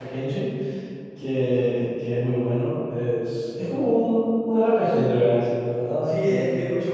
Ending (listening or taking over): taking over